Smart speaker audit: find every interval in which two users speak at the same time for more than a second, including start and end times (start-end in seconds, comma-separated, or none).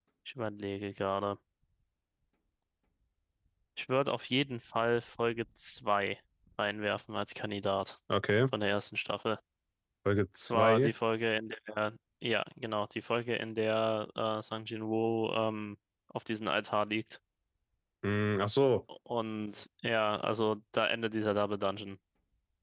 none